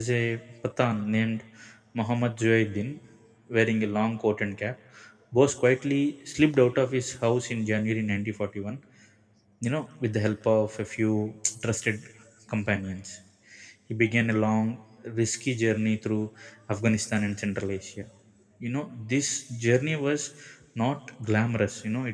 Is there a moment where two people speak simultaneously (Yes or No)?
No